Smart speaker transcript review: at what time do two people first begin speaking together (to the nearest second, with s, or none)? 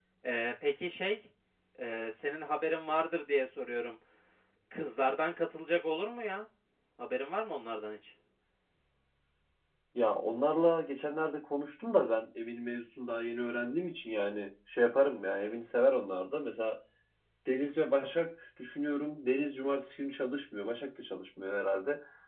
none